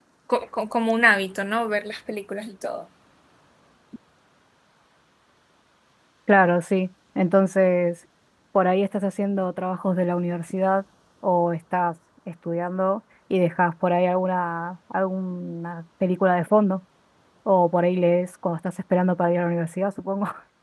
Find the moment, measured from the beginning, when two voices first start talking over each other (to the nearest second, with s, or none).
none